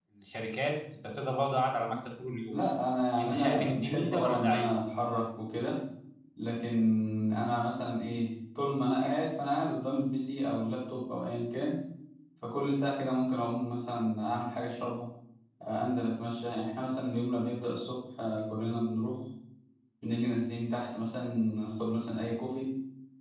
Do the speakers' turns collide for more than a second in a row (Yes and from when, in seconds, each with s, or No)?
Yes, from 3.2 s